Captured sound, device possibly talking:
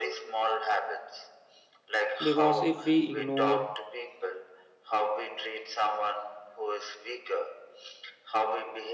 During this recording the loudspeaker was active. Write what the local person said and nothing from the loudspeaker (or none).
because if we ignore